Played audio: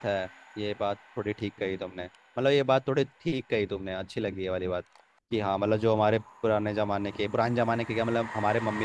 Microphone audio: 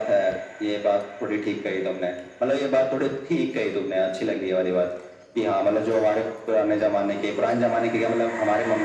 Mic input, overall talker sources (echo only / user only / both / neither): echo only